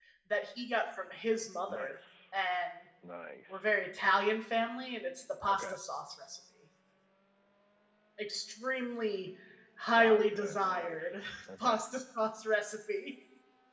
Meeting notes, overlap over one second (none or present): present